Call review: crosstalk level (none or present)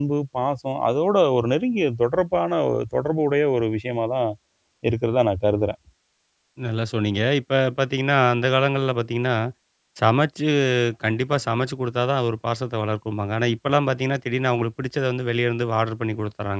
none